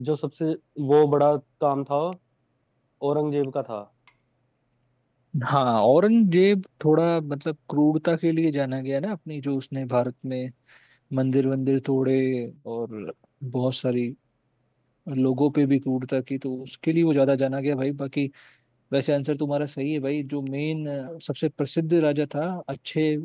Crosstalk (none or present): none